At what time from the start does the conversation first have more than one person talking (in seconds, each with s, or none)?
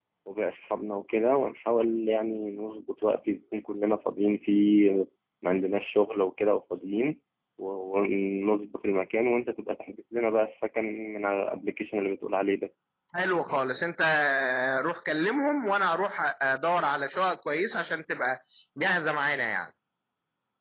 none